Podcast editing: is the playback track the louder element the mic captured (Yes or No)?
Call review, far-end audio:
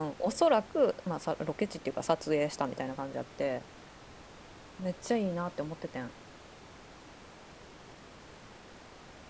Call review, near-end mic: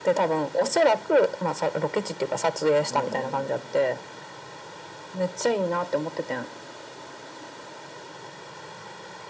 Yes